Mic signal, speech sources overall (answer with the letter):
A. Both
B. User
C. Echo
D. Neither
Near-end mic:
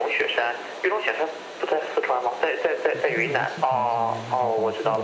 A